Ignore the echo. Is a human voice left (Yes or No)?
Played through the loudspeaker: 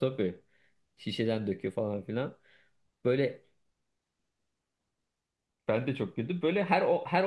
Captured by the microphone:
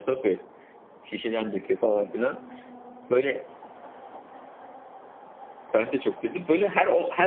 No